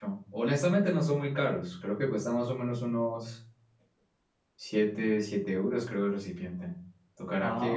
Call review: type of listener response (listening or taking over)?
listening